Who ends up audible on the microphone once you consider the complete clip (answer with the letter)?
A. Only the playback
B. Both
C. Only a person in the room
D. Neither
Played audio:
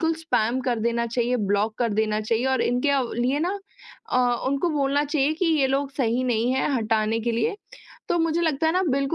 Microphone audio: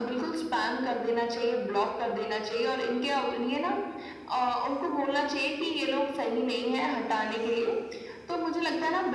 A